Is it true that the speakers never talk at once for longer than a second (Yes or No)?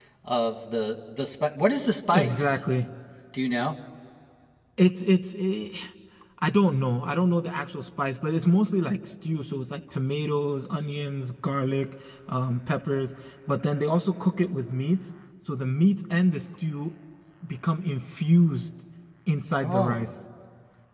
Yes